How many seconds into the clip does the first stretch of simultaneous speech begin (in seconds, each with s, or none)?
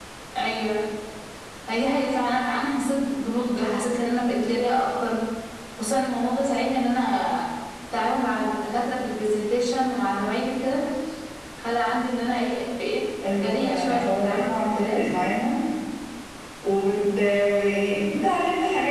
13.2 s